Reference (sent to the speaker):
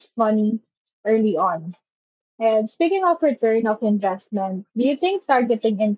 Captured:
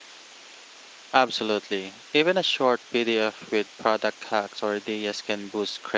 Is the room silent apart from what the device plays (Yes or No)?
No